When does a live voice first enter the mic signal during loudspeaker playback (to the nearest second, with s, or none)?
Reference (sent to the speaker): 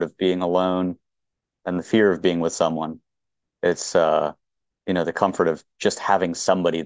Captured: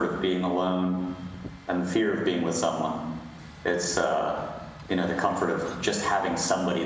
none